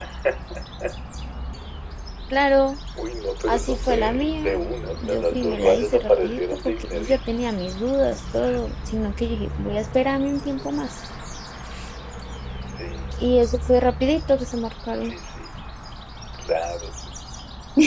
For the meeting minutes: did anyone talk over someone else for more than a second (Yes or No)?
Yes